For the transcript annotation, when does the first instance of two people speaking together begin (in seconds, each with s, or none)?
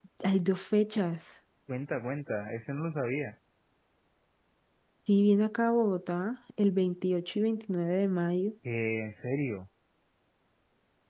none